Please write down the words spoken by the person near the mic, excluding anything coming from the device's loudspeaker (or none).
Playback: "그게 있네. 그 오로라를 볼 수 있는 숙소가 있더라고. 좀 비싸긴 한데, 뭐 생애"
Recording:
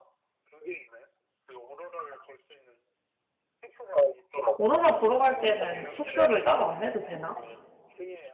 오로라 보러 갈 때는 숙소를 따로 안 해도 되나?